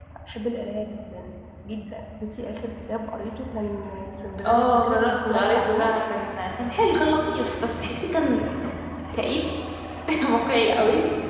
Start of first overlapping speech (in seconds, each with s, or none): 4.5 s